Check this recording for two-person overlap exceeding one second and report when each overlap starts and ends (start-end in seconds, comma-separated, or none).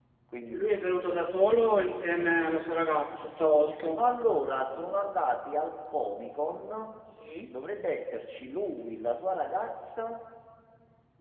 none